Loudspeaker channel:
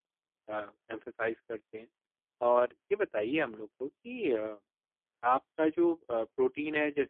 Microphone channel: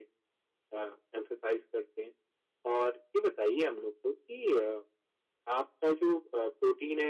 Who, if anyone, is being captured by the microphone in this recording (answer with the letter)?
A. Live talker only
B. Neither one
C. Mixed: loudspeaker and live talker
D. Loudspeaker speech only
D